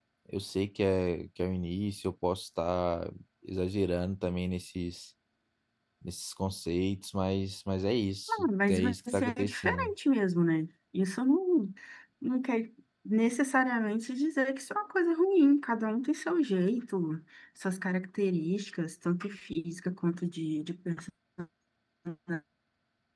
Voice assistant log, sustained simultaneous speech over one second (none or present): present